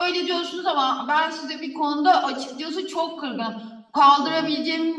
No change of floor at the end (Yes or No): Yes